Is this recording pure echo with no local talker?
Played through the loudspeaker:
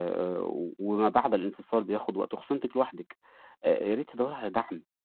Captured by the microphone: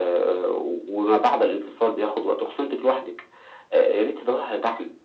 Yes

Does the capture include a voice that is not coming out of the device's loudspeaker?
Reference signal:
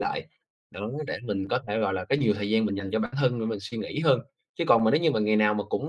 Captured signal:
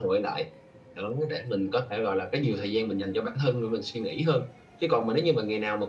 No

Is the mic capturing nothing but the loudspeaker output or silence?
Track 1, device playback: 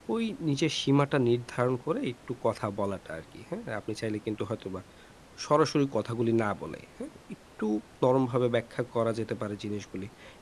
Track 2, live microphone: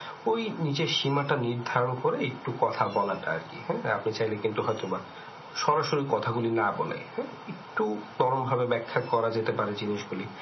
Yes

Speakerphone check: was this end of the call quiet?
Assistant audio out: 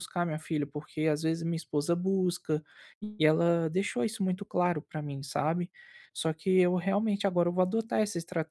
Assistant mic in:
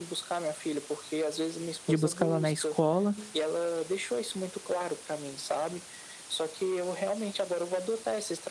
No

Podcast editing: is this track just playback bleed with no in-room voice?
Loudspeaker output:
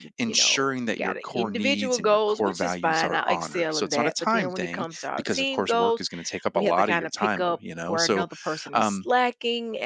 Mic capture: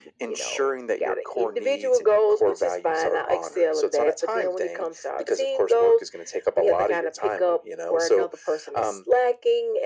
Yes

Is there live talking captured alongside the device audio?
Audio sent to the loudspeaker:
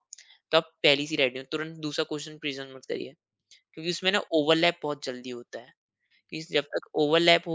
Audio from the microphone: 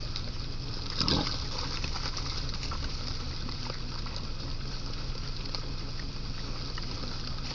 No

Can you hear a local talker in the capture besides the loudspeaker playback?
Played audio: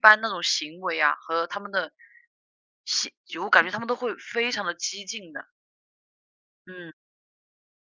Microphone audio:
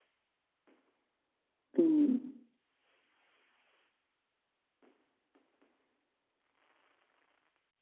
Yes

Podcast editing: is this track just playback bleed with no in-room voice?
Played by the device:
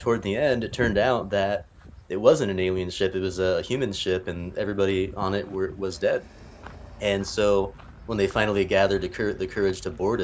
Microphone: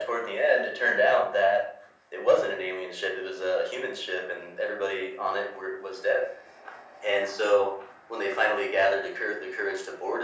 Yes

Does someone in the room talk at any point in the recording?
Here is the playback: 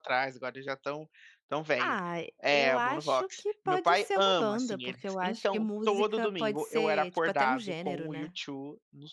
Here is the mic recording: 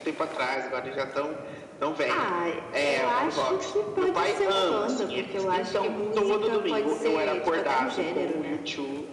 No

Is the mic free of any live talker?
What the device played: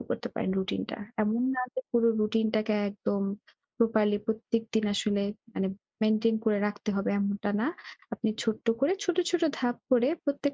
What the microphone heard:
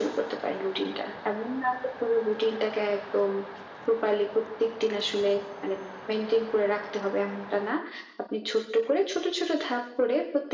Yes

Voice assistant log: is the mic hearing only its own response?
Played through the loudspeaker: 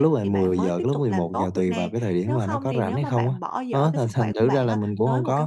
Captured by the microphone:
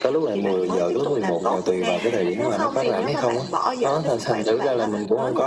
No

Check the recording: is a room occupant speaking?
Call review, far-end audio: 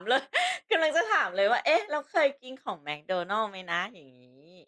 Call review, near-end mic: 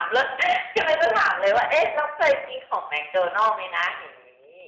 No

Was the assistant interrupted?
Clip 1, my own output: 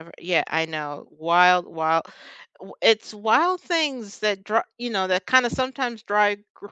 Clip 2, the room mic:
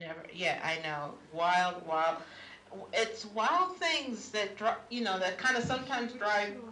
Yes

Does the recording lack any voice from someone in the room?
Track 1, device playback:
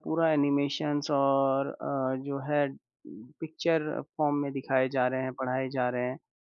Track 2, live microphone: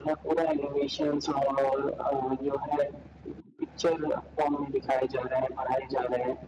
Yes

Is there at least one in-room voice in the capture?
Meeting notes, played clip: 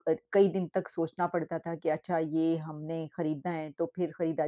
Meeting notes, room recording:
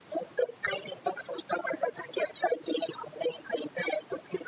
No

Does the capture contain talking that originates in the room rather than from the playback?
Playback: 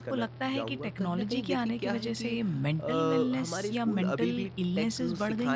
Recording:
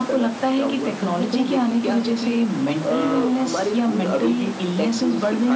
No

